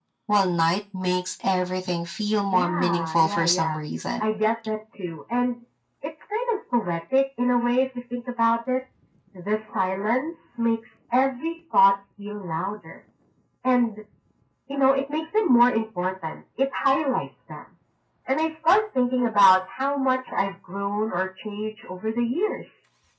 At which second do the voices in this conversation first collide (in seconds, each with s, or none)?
2.5 s